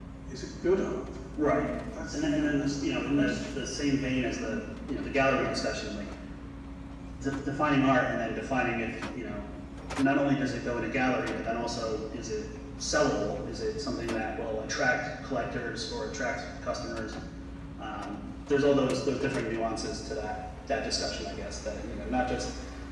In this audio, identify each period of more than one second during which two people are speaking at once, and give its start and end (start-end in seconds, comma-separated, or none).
2.1-3.4